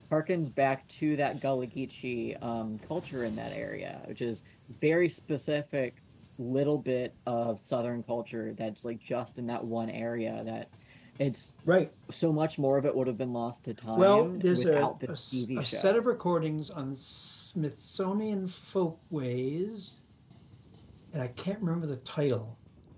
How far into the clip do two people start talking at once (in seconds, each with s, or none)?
14.0 s